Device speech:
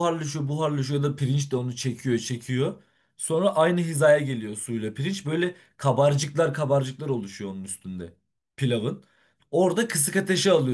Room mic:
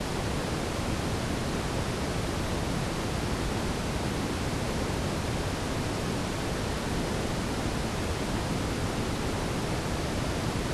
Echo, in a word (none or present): none